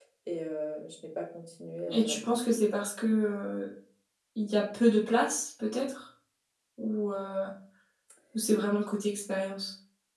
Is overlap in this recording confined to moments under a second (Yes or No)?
Yes